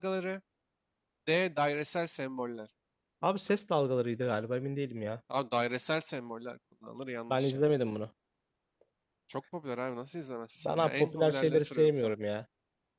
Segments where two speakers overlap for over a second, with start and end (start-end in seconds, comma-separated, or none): 10.6-12.2